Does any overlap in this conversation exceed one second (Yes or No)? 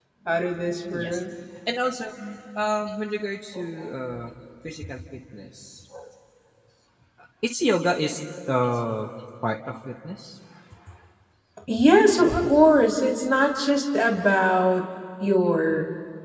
No